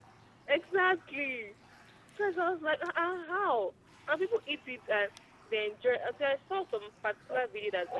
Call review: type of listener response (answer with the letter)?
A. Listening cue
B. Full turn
B